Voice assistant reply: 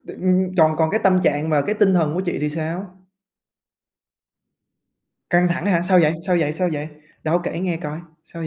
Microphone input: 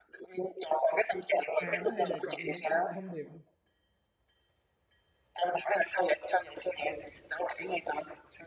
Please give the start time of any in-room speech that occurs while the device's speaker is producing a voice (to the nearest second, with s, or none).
2 s